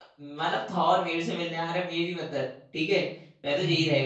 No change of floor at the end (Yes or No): Yes